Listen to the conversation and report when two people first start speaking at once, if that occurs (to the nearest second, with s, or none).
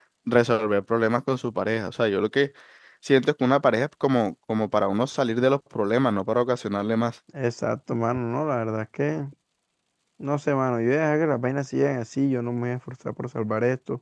none